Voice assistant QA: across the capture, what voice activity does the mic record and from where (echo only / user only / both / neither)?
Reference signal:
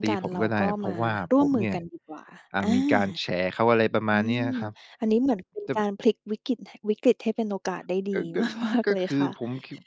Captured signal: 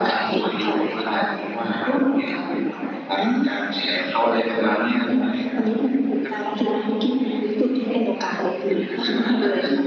echo only